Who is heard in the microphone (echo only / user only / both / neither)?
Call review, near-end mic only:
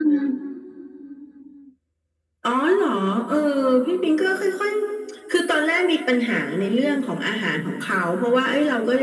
echo only